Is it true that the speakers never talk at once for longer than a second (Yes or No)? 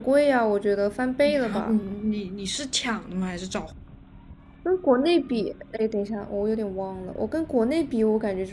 Yes